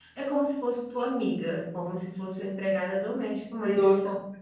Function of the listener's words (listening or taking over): taking over